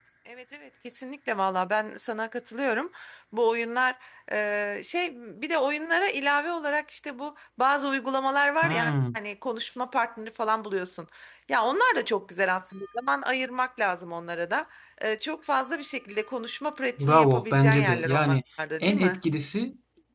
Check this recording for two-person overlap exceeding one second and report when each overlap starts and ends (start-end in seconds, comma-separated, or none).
17.0-18.4